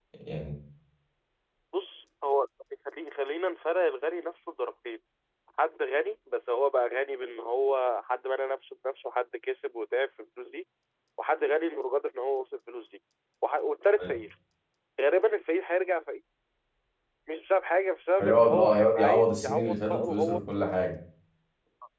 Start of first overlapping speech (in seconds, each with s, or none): 18.2 s